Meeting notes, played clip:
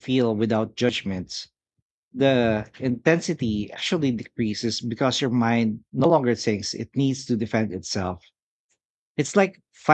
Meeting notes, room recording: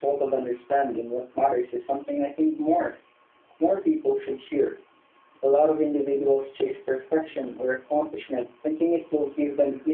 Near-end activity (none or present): present